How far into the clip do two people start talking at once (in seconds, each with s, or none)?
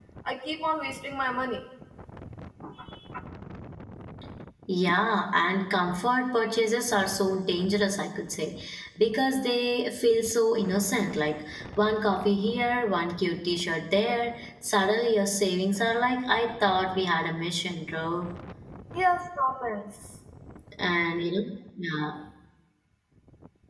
none